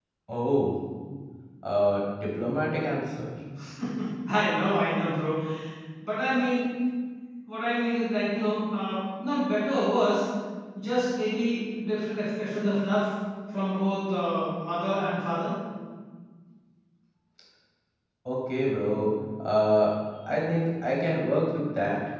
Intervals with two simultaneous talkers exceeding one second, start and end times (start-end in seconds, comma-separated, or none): none